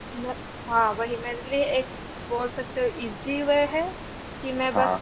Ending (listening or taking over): listening